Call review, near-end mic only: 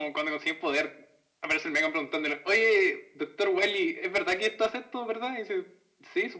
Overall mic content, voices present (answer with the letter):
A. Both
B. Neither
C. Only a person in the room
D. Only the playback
D